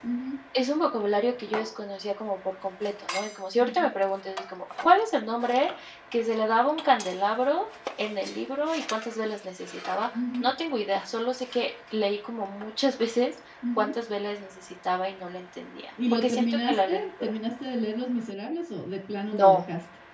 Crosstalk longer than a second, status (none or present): present